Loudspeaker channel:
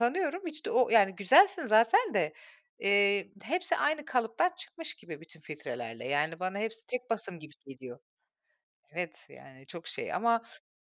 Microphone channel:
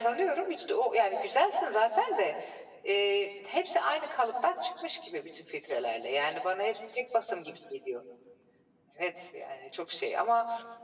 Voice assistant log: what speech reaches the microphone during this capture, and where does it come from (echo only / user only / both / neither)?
echo only